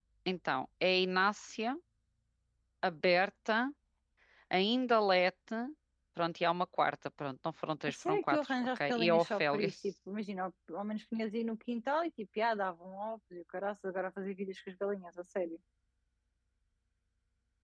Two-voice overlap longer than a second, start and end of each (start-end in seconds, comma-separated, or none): 7.9-9.7